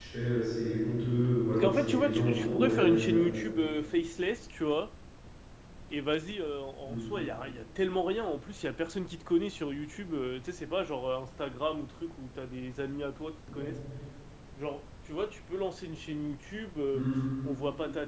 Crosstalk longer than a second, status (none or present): present